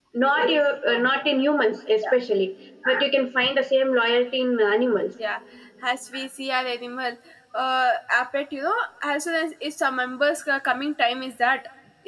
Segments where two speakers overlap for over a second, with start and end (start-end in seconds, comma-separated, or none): none